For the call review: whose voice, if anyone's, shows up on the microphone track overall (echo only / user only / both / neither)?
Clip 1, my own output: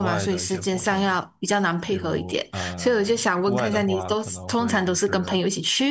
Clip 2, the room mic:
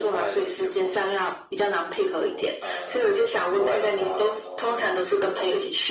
echo only